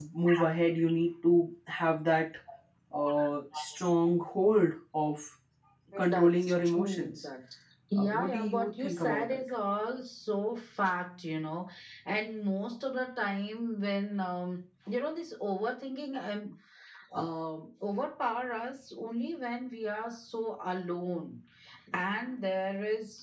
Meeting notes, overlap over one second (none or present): present